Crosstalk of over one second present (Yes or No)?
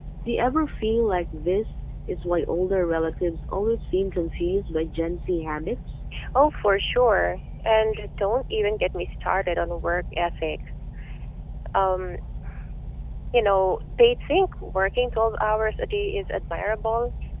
No